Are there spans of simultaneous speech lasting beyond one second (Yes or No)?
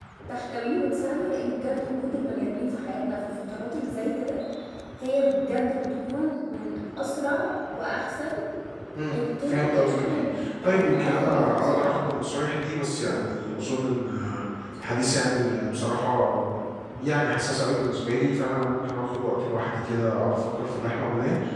Yes